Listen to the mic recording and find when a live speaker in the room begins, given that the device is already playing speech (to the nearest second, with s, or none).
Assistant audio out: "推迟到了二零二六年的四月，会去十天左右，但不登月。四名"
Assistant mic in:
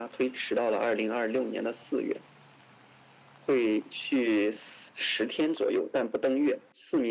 none